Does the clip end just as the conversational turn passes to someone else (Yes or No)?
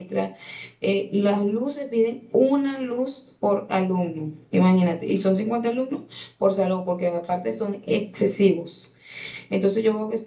No